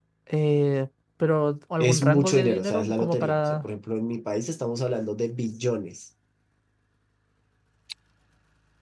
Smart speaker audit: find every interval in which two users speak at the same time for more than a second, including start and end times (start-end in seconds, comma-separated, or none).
1.8-3.7